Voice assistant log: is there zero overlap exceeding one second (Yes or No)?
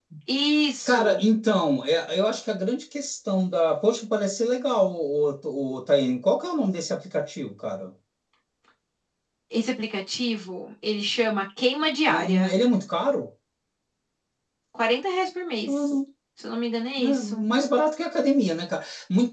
Yes